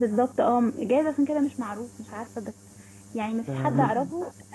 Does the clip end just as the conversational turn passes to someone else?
No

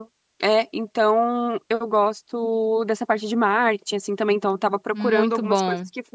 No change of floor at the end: Yes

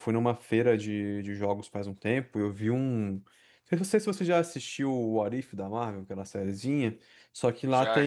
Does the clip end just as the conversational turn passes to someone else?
No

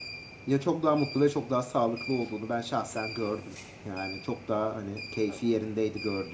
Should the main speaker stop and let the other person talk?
No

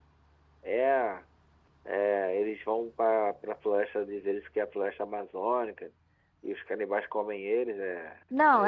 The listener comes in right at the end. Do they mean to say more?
Yes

